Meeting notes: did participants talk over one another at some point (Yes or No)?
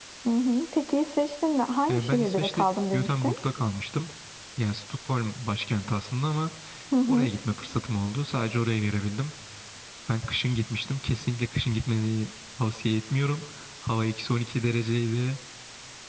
Yes